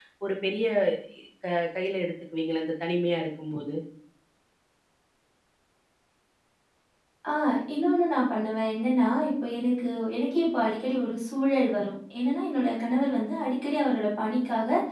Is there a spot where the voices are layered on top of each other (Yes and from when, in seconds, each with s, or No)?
No